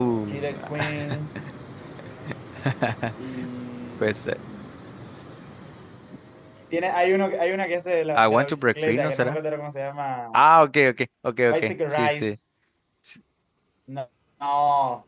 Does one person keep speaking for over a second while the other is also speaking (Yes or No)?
Yes